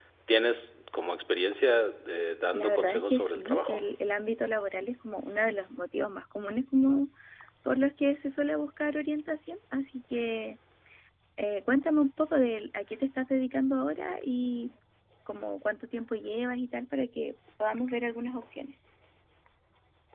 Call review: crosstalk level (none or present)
present